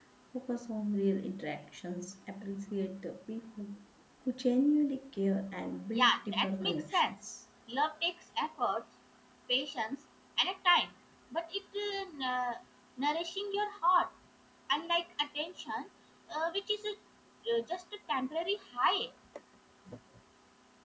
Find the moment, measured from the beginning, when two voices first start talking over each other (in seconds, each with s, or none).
5.9 s